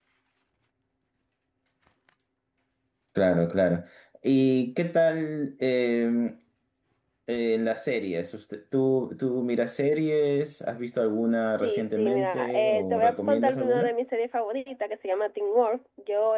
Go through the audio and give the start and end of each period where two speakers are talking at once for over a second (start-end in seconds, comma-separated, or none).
11.6-13.9